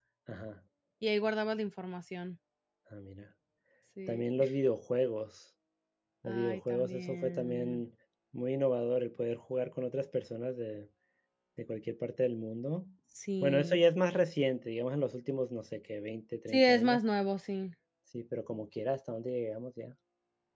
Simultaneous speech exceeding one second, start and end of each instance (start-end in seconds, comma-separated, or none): 6.2-7.8